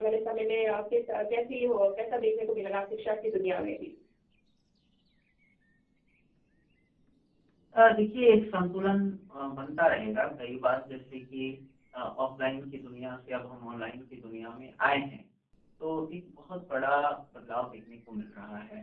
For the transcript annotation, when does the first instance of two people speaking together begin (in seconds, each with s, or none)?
none